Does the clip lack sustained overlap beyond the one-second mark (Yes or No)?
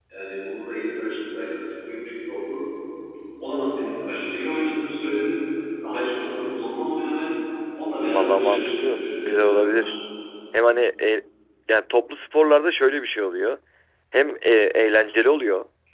No